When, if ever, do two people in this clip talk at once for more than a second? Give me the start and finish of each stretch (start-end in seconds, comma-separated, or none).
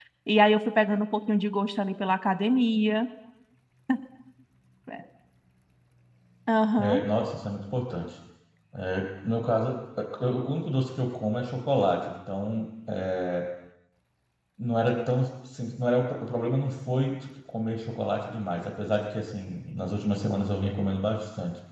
none